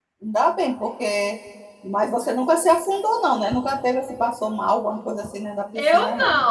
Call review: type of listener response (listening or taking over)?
taking over